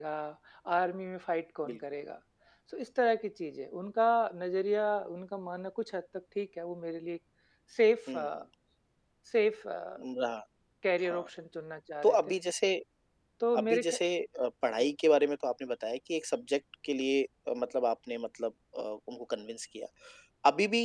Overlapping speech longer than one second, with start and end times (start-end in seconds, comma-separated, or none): none